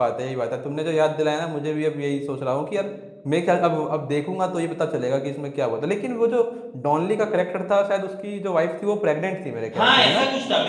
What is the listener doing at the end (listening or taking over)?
taking over